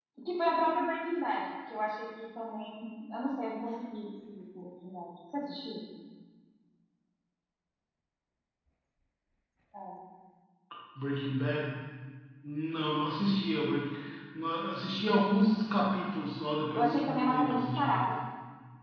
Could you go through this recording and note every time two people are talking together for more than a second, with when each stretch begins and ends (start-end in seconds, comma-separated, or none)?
16.8-18.1